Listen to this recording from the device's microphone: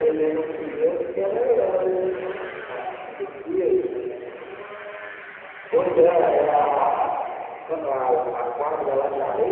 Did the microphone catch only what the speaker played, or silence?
Yes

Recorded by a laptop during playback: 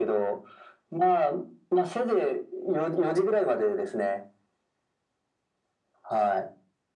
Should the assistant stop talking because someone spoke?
No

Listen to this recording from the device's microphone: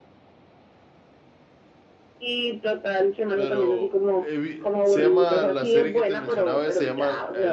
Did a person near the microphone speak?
Yes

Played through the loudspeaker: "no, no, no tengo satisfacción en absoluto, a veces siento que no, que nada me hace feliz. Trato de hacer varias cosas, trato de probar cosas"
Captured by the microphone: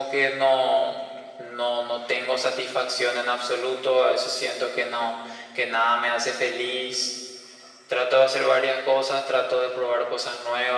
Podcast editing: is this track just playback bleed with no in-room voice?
Yes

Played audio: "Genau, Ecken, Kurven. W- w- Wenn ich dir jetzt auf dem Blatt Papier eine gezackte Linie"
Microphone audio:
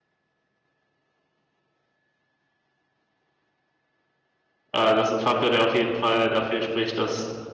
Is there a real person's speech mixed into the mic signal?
Yes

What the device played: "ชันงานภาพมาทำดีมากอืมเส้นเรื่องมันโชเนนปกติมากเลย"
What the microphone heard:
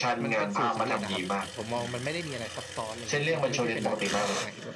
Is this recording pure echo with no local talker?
No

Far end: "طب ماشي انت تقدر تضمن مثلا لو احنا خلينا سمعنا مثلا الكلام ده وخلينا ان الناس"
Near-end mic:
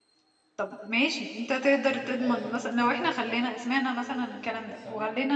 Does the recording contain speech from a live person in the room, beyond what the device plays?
Yes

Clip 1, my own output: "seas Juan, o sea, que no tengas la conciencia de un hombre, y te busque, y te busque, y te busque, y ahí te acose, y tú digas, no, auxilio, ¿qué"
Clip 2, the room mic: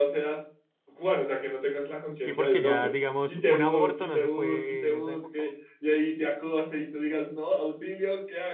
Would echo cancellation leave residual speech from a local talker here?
Yes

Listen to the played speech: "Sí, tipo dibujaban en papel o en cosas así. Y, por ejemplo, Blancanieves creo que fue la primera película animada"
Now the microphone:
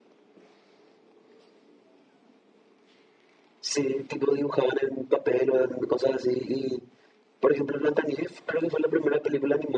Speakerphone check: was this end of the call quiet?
Yes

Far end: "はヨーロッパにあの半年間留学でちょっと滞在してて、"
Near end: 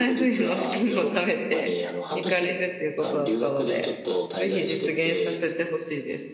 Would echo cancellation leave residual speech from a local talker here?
Yes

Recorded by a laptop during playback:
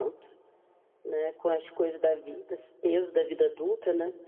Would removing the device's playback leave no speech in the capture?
Yes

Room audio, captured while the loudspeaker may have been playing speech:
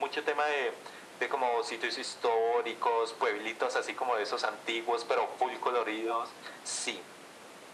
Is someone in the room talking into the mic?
No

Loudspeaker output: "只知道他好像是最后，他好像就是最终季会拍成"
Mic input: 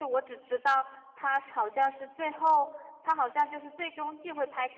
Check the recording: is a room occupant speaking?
No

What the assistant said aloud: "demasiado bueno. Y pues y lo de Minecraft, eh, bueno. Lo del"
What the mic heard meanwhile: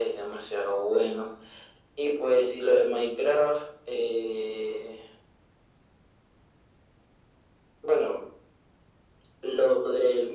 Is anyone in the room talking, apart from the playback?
No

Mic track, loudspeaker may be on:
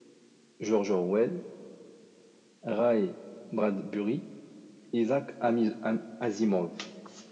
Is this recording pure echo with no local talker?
Yes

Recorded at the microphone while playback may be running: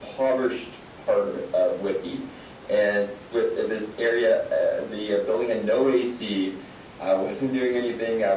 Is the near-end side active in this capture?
No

